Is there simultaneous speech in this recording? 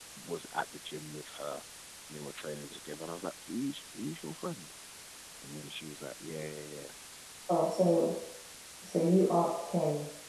No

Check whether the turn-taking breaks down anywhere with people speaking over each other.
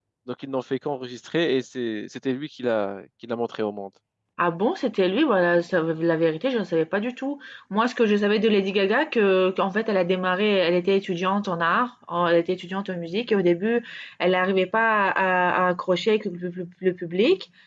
No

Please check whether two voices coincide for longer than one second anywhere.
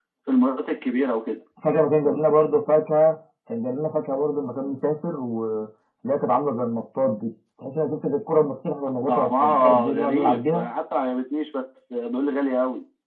Yes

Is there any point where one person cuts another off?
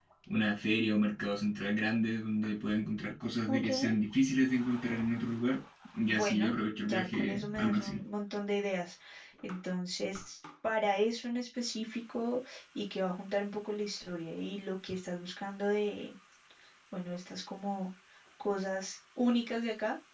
Yes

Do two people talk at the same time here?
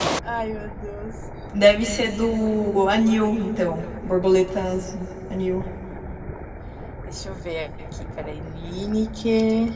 No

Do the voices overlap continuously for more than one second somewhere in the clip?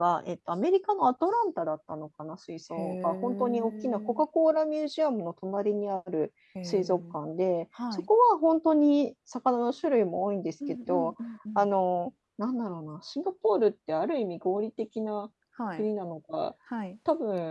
Yes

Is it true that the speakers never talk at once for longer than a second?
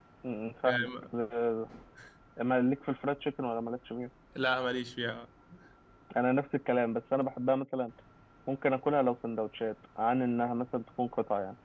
Yes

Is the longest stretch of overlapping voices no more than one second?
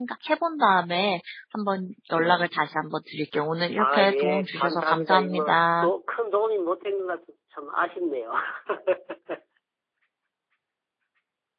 No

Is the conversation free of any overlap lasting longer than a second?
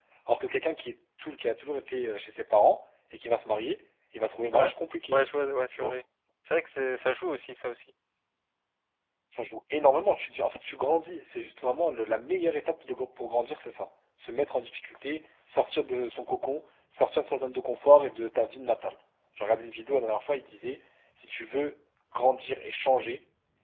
Yes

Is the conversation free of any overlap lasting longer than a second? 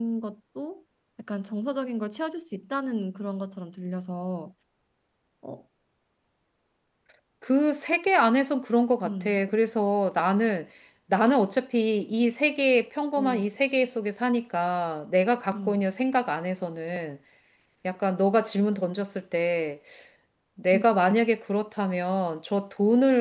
Yes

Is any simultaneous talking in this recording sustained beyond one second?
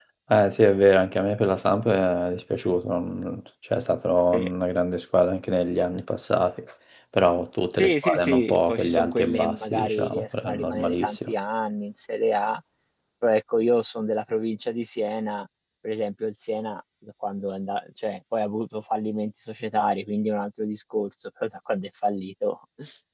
Yes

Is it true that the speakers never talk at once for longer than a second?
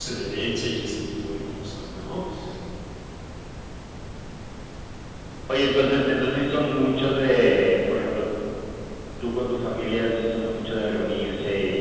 Yes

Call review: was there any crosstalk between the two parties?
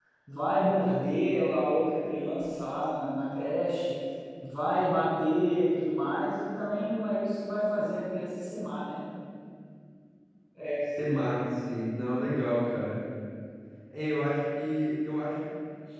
No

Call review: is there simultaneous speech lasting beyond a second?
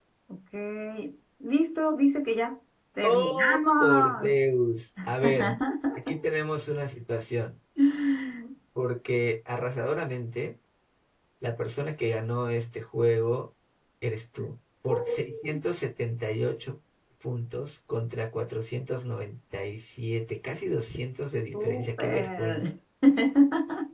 Yes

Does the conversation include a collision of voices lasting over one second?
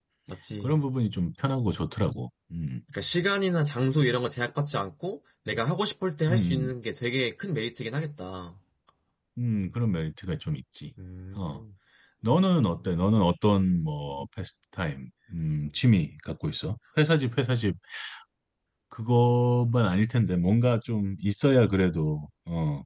No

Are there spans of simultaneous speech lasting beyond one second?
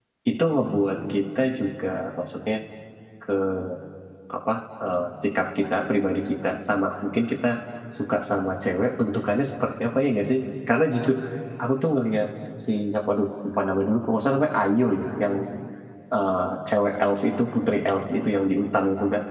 No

